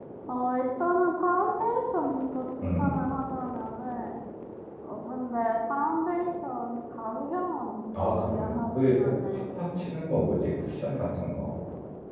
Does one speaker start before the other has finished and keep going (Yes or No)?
Yes